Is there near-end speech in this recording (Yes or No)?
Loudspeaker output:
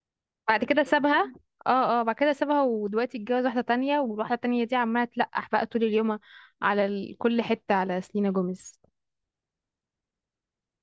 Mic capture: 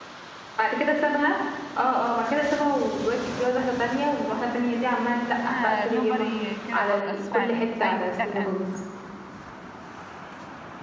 Yes